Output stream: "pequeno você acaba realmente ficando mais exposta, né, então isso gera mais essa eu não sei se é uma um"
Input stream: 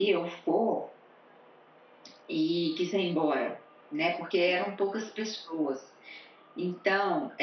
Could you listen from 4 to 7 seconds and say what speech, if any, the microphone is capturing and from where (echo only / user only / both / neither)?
user only